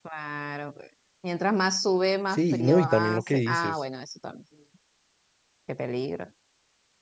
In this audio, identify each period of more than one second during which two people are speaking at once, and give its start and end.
2.3-3.8

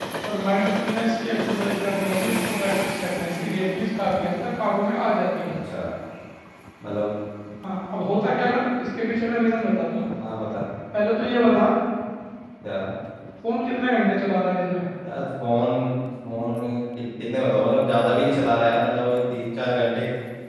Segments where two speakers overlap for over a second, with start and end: none

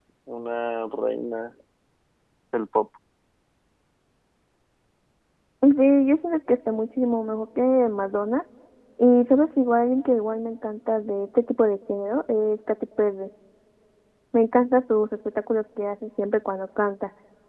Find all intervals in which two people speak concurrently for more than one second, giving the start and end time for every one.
none

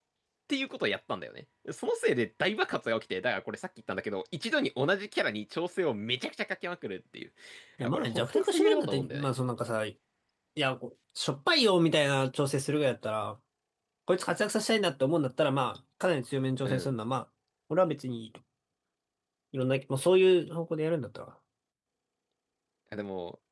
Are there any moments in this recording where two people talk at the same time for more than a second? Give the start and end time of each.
7.9-9.3

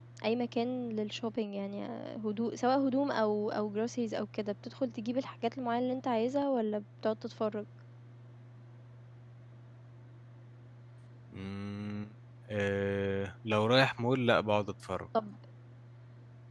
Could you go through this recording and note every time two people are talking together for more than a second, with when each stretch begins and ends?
none

